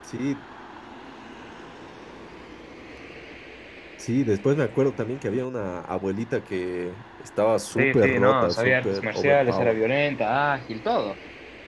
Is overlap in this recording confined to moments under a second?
No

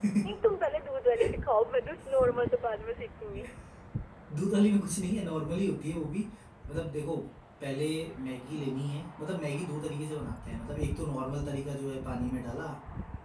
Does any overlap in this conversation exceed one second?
No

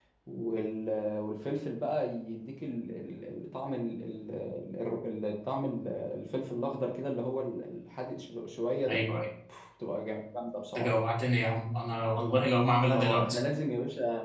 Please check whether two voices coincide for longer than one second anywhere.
No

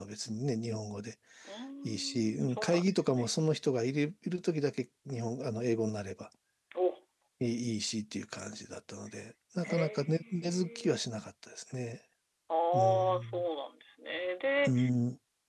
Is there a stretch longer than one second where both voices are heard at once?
Yes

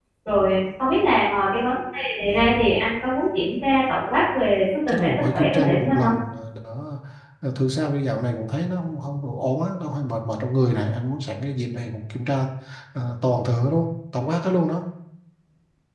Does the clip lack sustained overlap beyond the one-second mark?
No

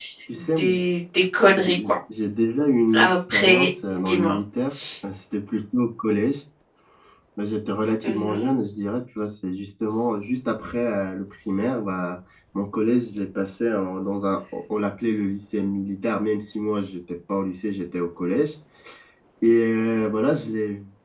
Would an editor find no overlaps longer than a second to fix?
No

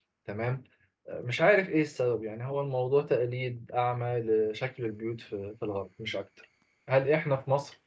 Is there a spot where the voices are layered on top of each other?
No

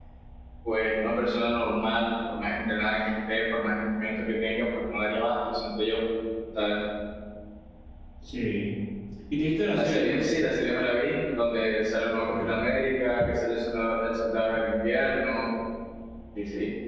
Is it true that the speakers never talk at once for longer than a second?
Yes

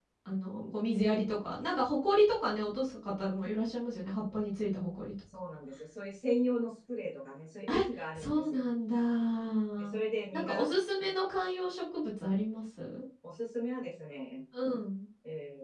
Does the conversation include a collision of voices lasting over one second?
No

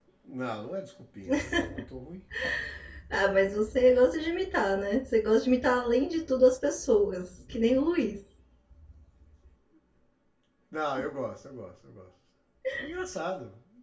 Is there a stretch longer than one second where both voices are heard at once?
No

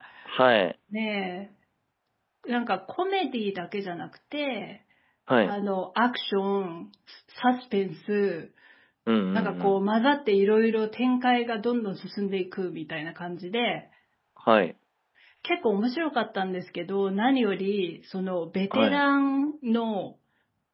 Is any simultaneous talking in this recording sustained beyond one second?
No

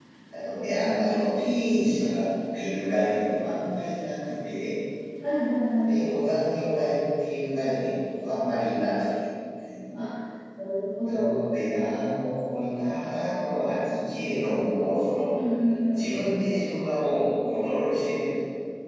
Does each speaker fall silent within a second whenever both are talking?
Yes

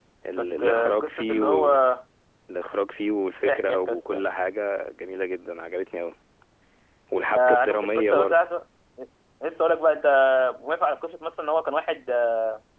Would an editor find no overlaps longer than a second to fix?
No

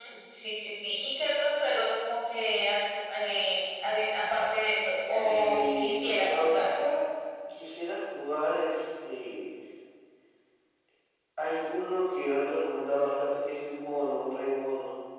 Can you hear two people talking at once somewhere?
Yes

